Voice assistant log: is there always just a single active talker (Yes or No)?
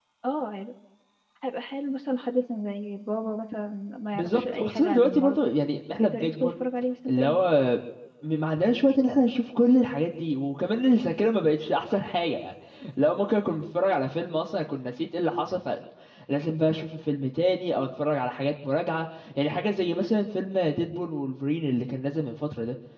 No